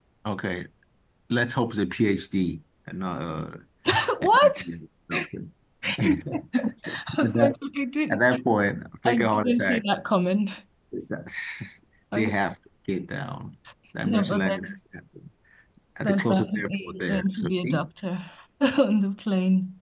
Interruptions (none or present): present